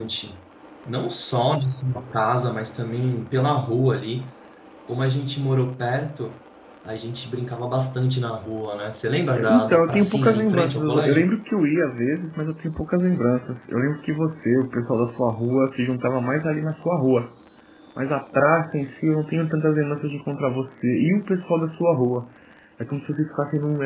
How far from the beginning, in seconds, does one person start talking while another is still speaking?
9.3 s

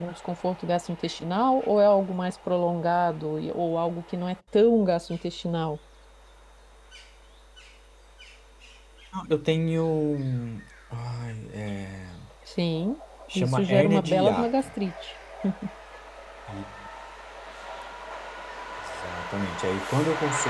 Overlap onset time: 13.3 s

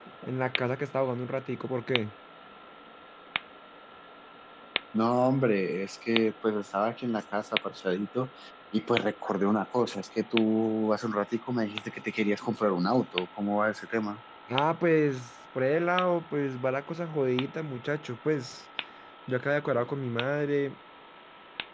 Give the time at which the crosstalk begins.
none

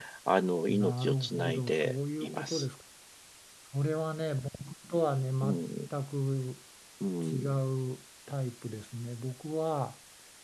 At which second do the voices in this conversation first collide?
0.7 s

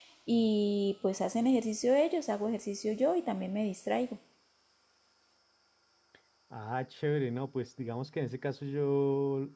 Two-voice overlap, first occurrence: none

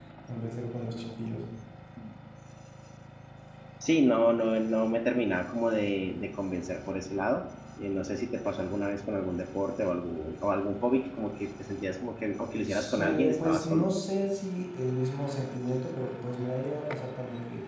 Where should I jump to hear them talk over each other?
12.7 s

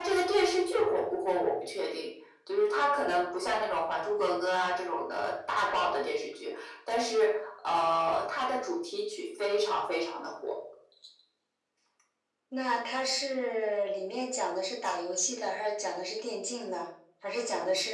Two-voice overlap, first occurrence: none

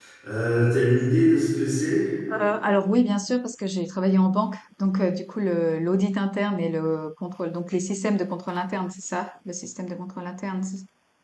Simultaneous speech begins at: none

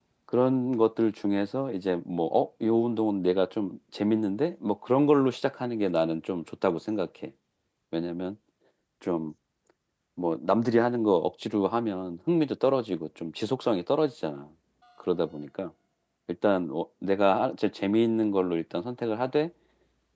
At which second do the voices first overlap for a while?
none

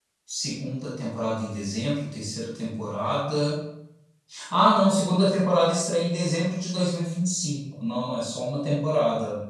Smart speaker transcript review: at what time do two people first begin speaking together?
none

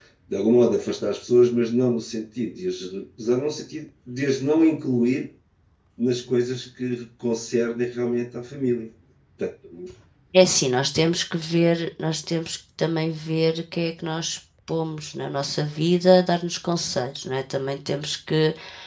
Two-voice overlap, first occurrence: none

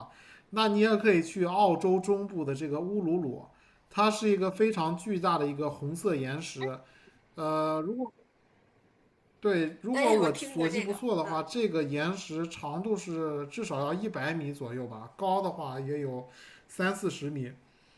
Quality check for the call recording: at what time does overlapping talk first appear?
9.9 s

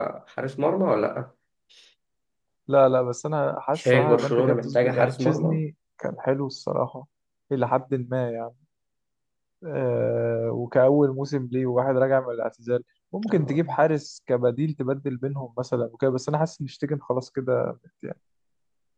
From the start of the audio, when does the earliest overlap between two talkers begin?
3.8 s

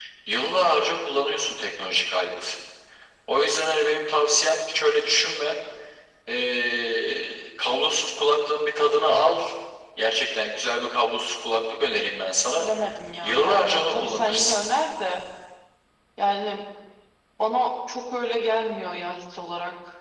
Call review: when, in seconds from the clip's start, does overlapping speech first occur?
13.2 s

